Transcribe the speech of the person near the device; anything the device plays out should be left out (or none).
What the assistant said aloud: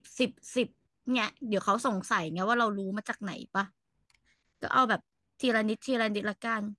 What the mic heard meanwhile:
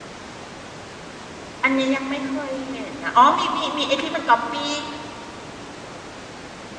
อันนี้ยังไม่เคยเห็นนะอ๋อมีมีมีไอ้ที่มันก๊อปปี้